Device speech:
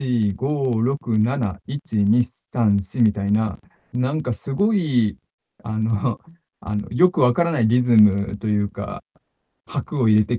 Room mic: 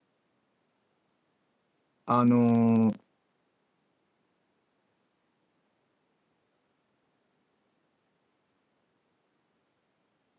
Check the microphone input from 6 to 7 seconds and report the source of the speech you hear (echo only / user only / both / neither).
neither